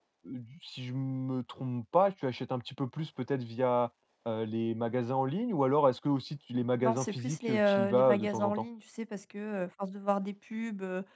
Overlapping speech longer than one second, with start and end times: 6.8-8.7

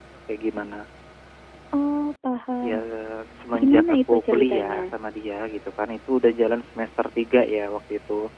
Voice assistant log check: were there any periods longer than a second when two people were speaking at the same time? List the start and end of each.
3.6-4.8

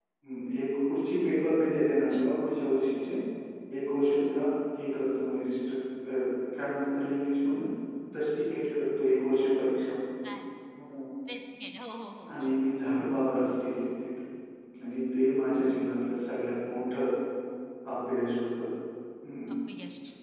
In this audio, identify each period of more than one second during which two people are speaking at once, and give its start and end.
none

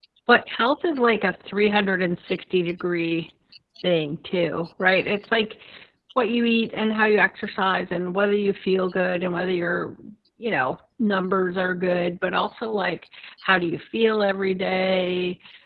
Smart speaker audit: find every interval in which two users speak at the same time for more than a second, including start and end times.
none

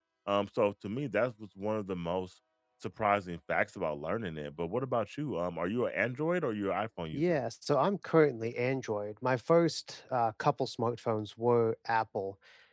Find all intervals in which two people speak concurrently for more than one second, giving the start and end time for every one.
none

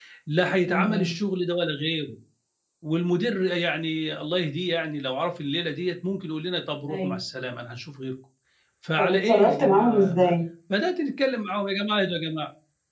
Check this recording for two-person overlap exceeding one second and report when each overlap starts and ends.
9.0-10.4

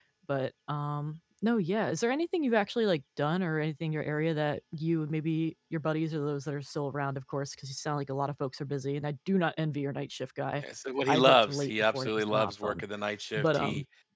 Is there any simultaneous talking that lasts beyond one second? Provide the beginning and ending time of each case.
11.1-12.8

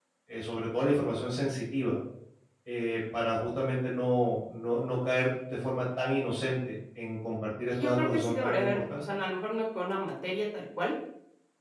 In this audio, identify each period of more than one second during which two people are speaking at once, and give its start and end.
7.7-9.0

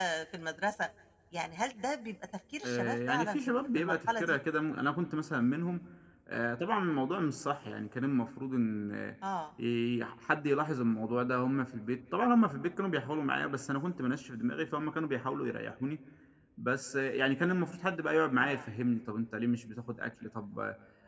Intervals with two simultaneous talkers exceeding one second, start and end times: 2.6-4.4

